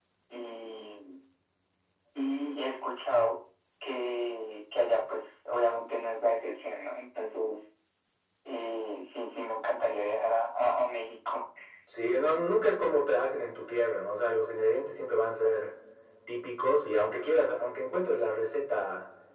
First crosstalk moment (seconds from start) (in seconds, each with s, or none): none